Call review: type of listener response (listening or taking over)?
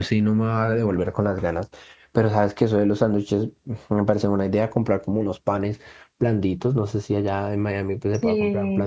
listening